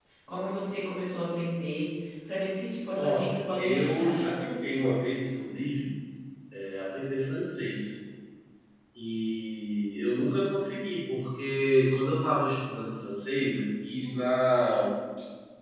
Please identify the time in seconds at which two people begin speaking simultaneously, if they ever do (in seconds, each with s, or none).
2.9 s